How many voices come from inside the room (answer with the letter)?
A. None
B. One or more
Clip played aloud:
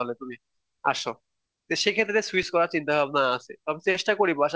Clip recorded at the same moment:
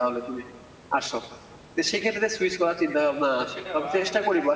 B